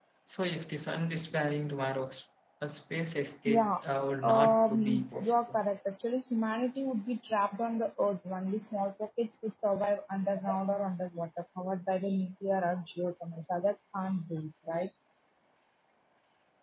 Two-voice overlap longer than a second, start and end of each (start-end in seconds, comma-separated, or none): 4.2-5.6